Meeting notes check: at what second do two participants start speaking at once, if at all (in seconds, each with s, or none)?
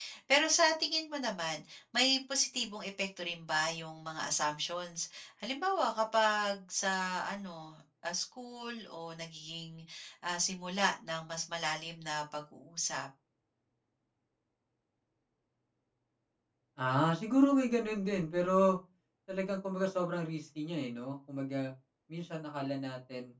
none